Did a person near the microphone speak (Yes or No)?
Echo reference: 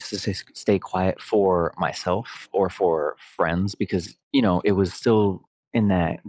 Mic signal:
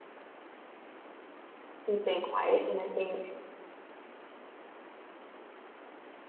Yes